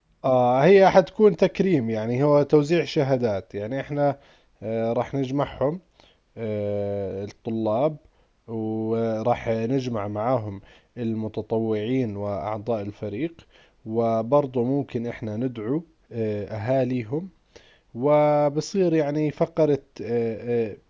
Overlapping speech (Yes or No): No